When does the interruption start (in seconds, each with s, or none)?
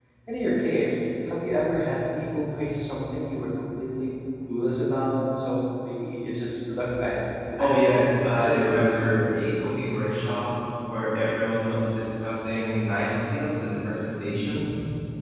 7.6 s